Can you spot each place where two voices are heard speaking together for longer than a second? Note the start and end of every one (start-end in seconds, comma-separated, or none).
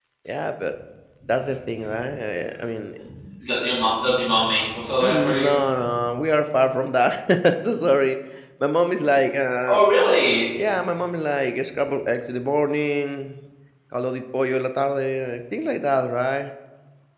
none